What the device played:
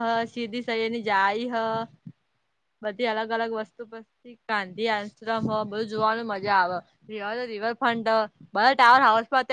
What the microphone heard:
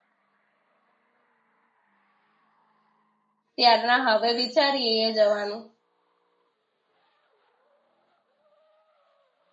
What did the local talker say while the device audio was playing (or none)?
ત્યાર ના હવે વિચારીએ જવાનું.